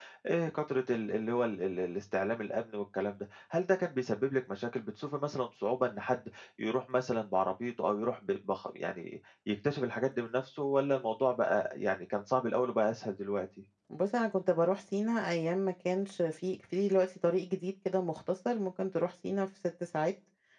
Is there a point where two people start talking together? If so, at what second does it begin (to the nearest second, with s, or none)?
none